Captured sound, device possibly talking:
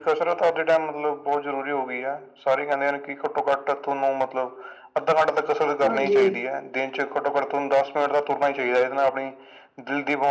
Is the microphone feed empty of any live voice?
No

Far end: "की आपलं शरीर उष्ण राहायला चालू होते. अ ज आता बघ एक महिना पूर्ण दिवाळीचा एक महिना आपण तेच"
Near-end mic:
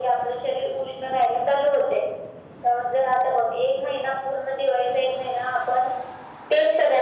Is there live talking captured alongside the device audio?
No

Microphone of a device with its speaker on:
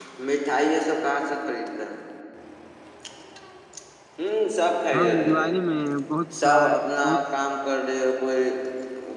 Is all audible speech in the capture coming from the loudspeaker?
No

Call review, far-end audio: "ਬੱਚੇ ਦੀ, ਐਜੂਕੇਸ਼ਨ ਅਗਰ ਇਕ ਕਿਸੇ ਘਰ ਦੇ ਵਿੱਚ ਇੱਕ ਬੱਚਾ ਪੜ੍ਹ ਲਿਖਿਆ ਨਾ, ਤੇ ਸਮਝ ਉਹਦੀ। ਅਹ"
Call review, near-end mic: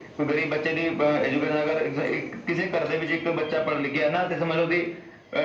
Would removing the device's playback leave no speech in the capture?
Yes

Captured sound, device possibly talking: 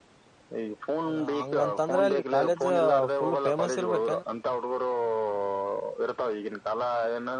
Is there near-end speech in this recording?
Yes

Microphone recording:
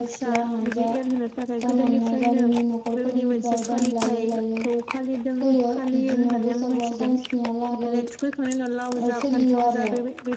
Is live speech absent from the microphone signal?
No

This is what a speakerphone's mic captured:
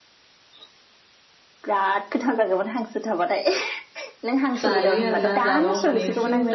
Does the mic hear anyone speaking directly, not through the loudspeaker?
Yes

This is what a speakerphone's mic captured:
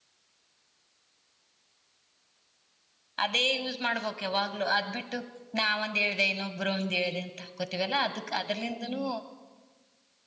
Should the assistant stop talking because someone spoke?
Yes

